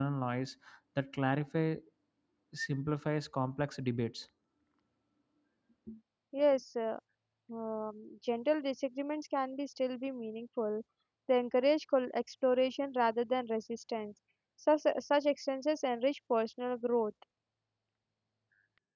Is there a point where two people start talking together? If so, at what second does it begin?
none

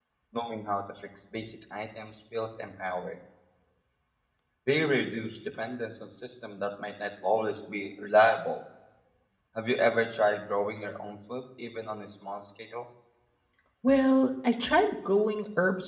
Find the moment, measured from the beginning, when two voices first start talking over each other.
none

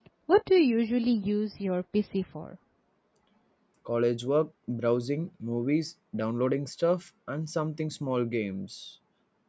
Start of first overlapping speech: none

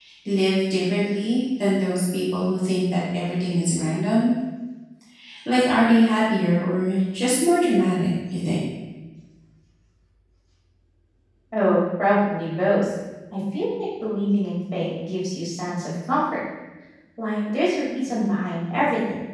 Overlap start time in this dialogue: none

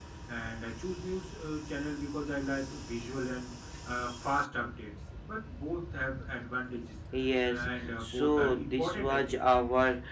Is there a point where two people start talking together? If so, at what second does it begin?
7.4 s

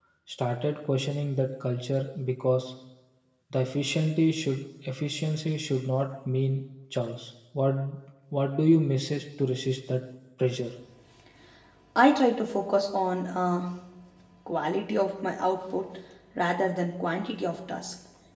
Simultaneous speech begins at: none

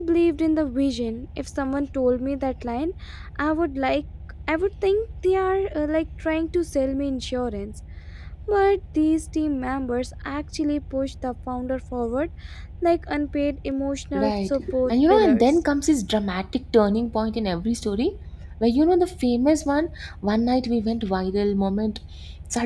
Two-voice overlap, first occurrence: 14.1 s

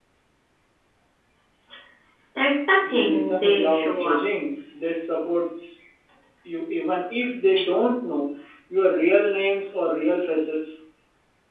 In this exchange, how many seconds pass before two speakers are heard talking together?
2.9 s

